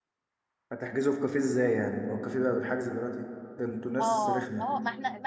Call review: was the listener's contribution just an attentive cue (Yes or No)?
No